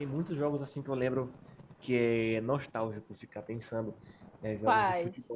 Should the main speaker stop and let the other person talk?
No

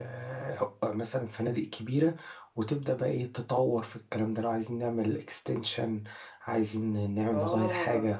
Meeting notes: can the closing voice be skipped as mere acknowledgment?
No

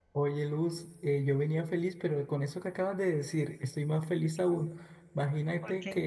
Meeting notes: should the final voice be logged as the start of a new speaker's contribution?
No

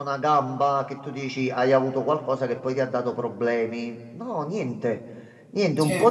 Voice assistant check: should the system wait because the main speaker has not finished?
Yes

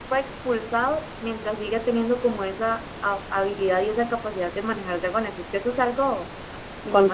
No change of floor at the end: No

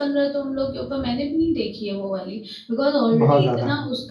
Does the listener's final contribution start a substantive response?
No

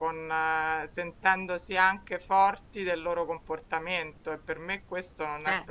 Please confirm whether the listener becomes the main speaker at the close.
No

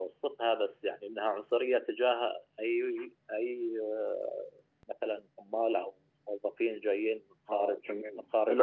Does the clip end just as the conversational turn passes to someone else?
Yes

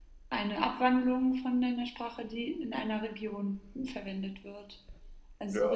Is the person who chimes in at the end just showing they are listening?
No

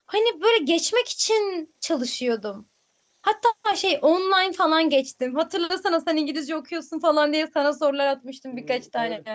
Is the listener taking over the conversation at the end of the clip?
Yes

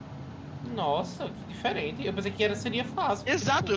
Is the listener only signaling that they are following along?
No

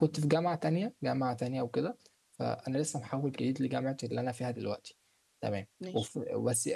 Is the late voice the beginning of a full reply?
No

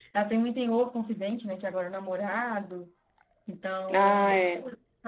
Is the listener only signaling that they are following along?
Yes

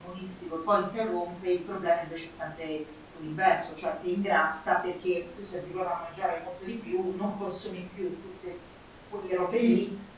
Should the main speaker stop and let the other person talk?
Yes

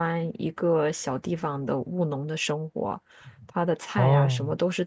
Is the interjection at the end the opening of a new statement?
No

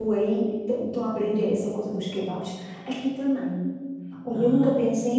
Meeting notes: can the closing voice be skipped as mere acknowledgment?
Yes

